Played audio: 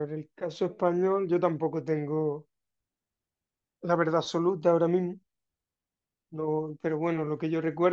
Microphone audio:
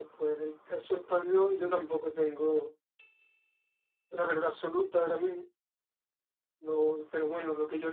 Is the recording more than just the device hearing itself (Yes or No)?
No